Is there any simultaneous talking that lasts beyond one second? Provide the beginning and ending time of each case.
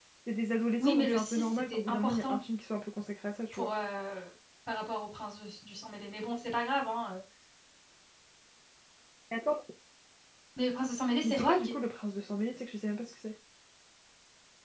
0.8-2.4

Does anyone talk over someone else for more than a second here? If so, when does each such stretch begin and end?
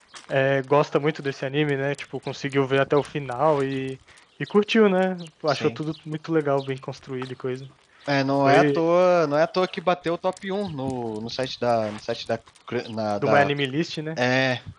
none

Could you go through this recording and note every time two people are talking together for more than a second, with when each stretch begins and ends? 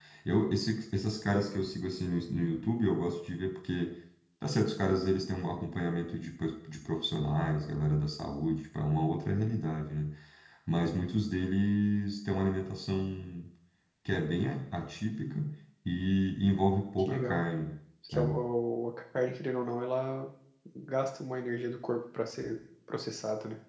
none

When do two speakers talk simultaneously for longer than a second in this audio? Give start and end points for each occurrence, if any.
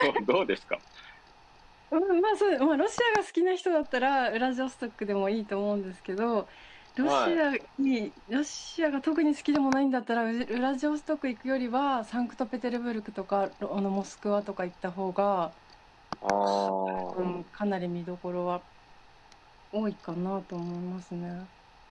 none

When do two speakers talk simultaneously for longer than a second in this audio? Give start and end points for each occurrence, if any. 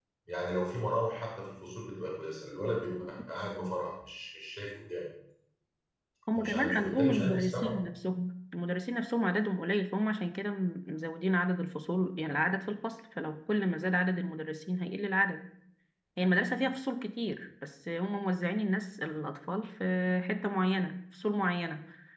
6.3-7.8

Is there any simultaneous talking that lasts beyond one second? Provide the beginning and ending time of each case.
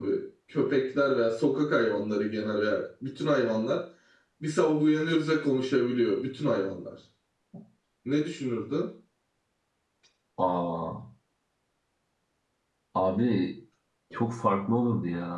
none

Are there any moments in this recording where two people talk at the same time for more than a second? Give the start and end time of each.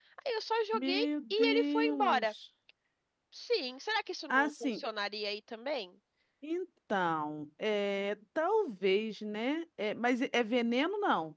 0.7-2.3

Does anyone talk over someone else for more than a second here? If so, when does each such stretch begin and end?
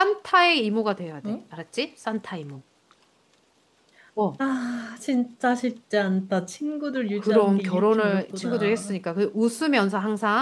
7.2-8.9

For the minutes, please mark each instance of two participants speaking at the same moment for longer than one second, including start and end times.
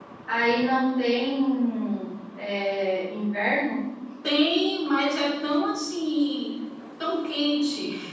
none

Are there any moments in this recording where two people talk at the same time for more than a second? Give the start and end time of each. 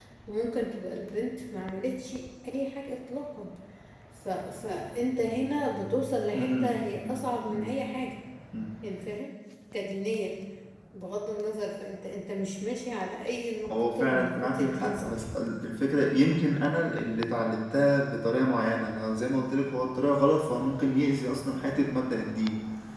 6.3-7.6, 13.7-15.2

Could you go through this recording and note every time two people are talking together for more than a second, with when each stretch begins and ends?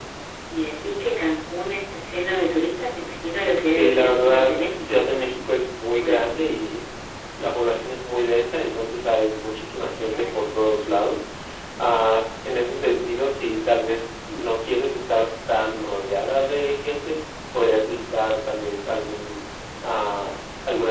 3.6-5.0

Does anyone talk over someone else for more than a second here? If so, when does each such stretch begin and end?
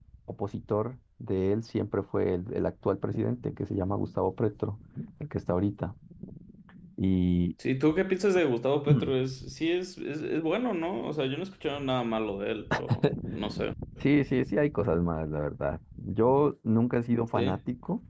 none

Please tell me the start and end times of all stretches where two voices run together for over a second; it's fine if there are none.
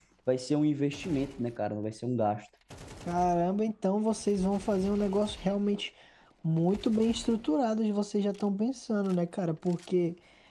none

